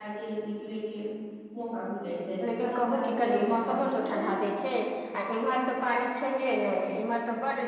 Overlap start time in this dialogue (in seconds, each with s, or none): 2.4 s